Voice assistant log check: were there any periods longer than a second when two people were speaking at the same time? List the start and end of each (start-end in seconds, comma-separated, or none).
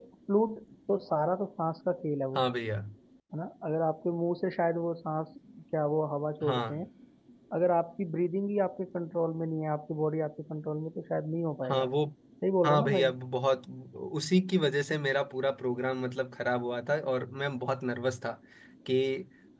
none